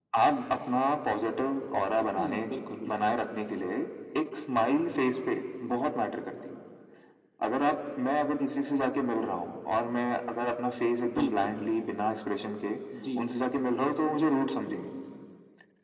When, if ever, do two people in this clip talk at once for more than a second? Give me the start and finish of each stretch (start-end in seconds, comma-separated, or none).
none